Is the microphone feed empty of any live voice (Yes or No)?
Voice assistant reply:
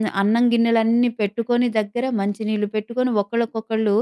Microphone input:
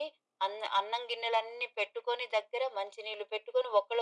Yes